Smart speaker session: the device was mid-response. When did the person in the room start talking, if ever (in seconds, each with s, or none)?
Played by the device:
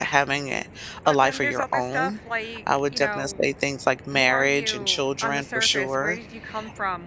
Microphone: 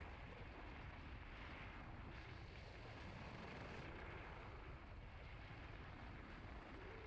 none